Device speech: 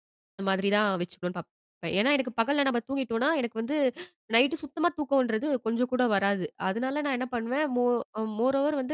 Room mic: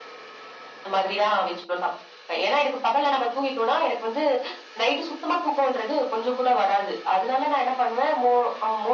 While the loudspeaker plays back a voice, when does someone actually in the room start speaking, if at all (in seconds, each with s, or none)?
none